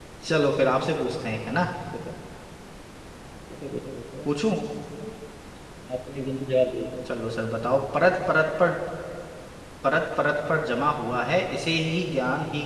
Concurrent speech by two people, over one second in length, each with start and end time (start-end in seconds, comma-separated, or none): none